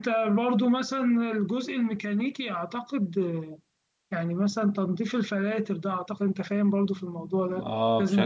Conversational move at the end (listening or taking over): taking over